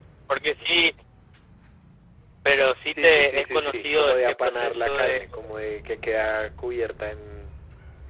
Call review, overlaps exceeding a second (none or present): present